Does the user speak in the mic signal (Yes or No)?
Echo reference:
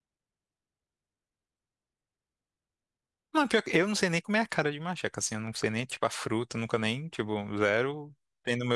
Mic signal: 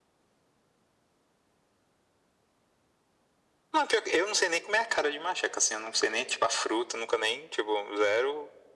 No